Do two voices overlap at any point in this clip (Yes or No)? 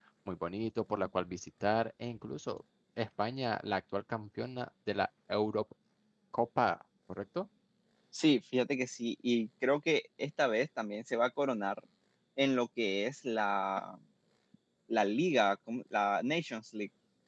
No